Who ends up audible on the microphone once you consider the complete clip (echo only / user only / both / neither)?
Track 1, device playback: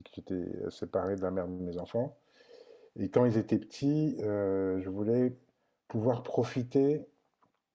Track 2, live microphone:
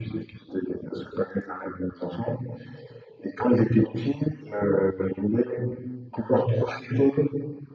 echo only